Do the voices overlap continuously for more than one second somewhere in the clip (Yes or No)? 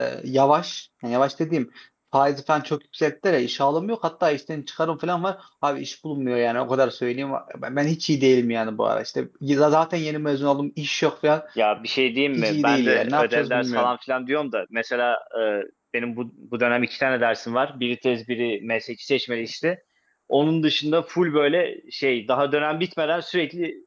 Yes